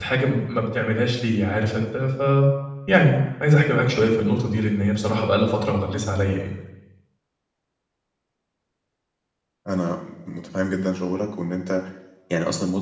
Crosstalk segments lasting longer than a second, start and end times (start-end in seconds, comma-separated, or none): none